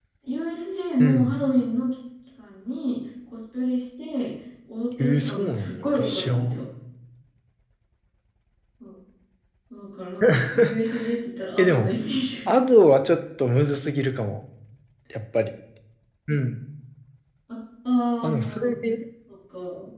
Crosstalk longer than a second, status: present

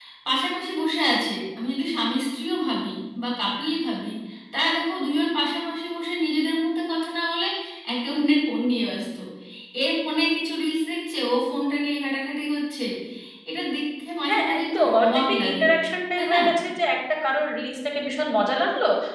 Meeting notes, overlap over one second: present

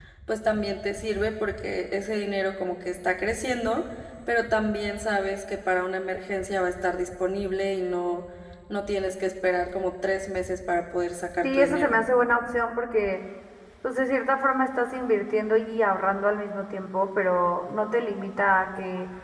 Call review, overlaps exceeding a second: none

